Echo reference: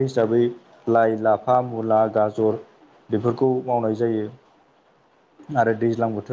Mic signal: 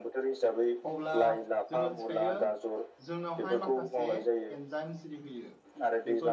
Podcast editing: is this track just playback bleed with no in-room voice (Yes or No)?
No